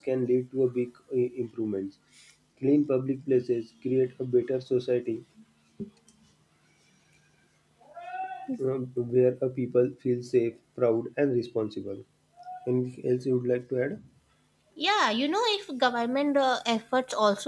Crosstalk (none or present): none